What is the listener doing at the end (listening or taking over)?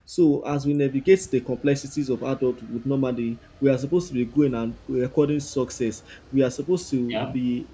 listening